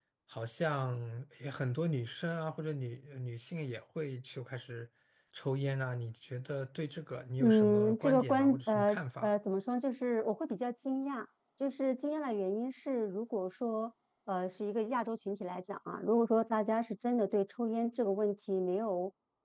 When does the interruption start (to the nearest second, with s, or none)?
7 s